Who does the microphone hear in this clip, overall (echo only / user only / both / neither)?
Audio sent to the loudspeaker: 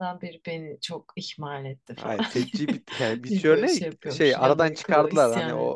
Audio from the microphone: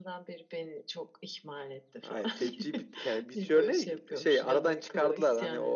echo only